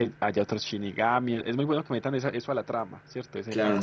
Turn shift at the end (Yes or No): Yes